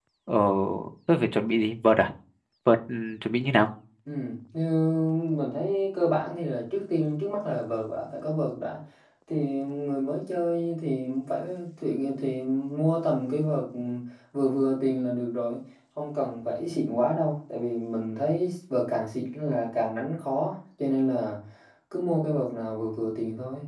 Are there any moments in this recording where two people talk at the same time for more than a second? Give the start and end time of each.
none

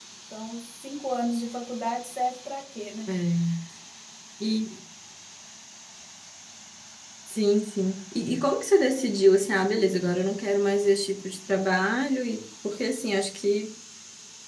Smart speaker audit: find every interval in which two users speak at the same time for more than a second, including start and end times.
none

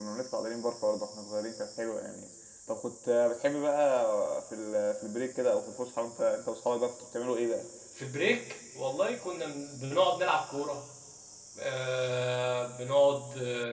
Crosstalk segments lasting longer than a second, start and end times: none

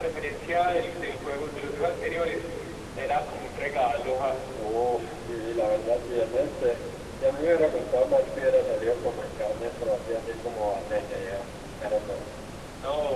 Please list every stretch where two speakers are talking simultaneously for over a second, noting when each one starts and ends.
none

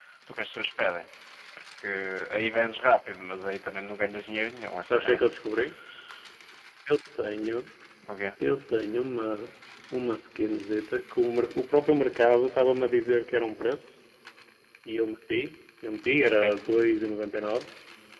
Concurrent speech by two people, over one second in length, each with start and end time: none

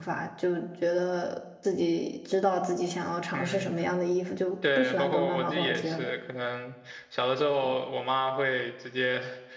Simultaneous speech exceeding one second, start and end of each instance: 4.8-6.1

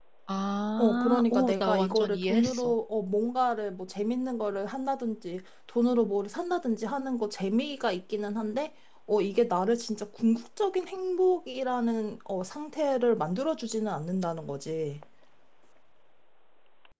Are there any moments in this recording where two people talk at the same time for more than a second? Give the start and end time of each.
0.8-2.7

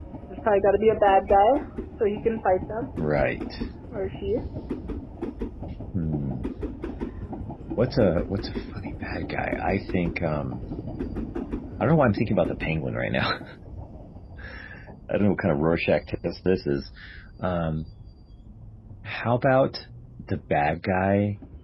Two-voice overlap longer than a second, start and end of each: none

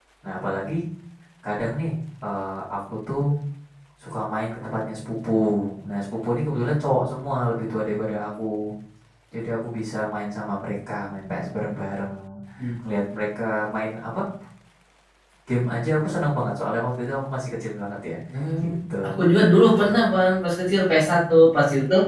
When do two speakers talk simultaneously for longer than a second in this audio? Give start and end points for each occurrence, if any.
none

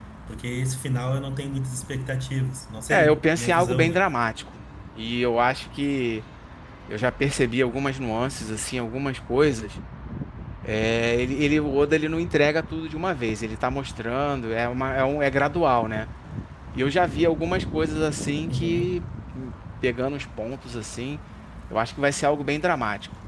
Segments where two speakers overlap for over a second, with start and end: 2.9-4.1

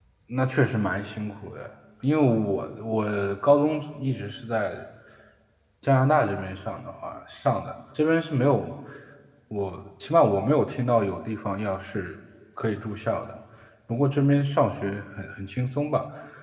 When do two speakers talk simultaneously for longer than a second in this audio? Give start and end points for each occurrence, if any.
none

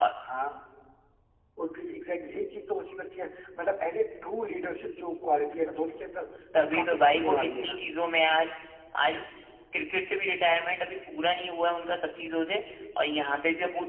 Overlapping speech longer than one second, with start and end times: 6.6-7.8

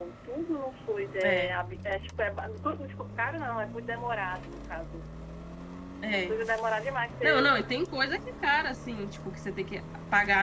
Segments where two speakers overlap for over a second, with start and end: none

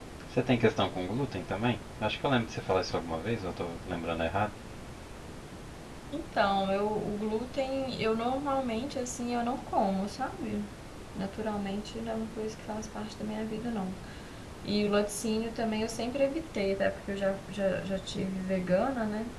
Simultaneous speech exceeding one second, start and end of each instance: none

